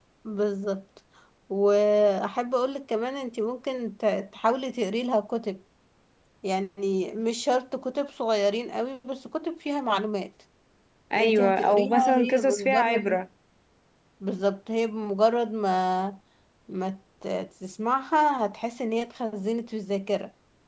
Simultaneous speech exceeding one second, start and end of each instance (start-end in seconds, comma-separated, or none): 11.2-13.2